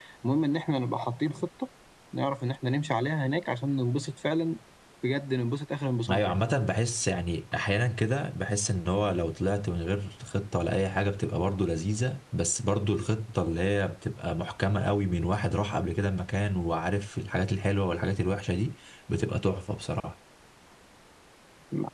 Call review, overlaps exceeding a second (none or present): none